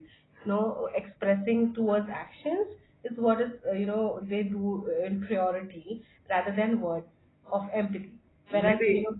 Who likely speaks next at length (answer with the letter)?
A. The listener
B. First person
B